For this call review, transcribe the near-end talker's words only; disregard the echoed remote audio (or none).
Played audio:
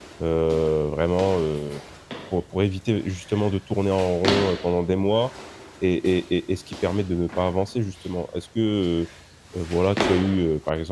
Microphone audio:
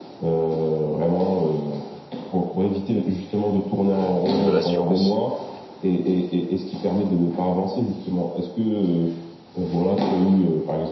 de de prendre de l'assurance, on va dire.